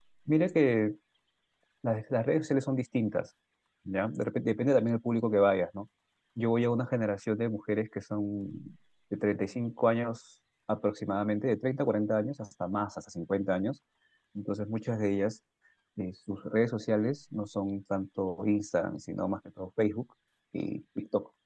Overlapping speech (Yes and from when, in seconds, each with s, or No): No